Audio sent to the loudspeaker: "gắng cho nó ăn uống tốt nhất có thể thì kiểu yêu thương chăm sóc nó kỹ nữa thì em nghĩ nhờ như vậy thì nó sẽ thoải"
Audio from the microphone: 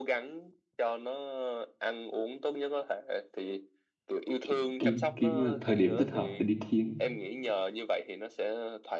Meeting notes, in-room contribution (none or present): present